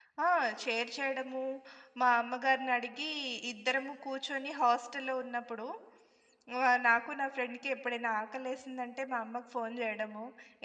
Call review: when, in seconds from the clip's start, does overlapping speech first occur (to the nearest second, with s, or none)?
none